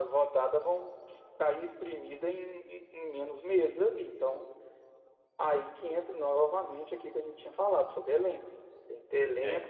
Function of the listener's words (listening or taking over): listening